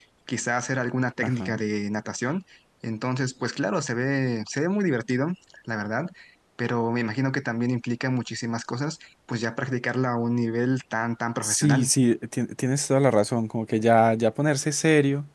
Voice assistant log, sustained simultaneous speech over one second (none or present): none